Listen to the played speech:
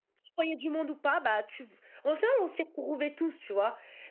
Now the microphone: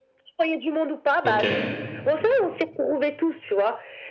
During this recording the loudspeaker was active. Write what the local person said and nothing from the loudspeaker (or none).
Ok.